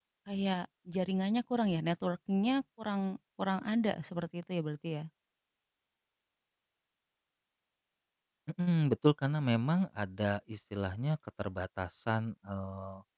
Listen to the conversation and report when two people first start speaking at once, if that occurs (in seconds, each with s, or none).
none